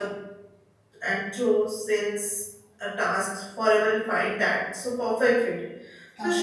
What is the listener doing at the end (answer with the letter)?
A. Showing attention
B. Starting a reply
A